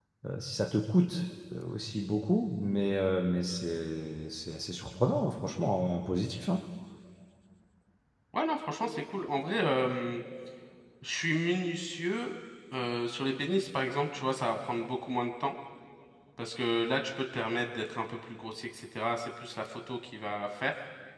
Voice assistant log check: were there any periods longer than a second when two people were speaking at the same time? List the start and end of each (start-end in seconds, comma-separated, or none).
none